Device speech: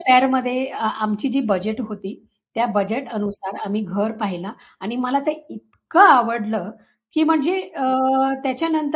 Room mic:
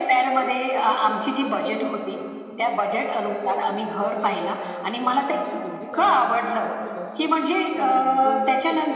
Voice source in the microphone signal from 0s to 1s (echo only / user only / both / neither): both